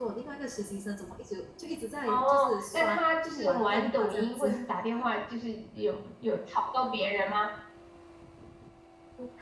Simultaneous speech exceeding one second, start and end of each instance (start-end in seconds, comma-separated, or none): 2.7-4.5